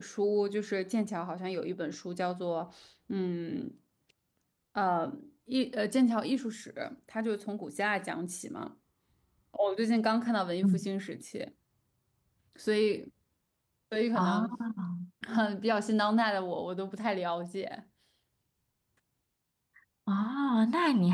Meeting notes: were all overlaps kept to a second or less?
Yes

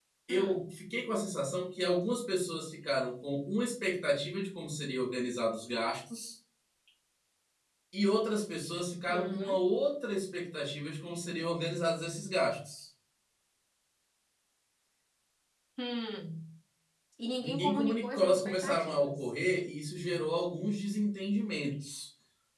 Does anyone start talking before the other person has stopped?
Yes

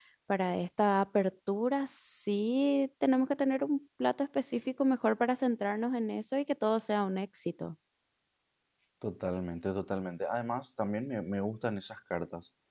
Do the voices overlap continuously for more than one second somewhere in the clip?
No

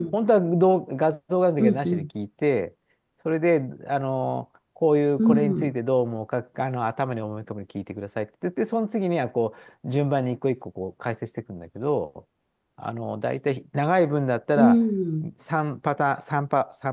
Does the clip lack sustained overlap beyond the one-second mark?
Yes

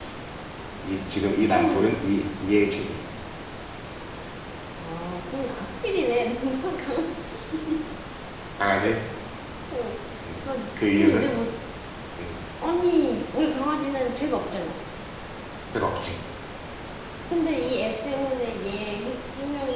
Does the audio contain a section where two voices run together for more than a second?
No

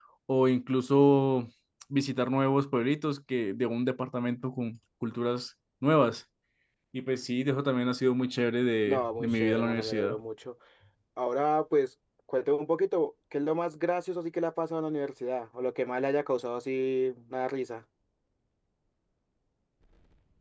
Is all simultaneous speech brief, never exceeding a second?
No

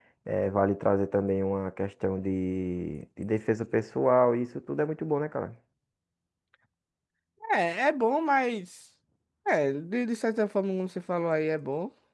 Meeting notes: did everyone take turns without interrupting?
Yes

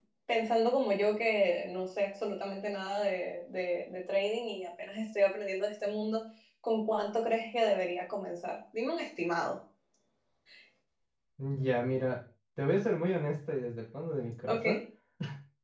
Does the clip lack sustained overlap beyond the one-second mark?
Yes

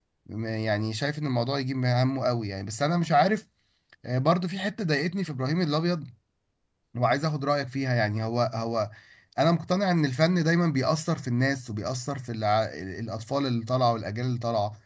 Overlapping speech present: No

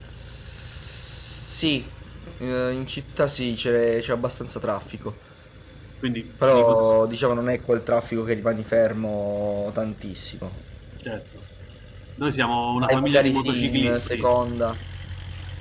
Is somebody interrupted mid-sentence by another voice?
Yes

